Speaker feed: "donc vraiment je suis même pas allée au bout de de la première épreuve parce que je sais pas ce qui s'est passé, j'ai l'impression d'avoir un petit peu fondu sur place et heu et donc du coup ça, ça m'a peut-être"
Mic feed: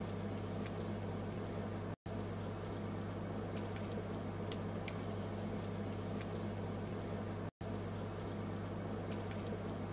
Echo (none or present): none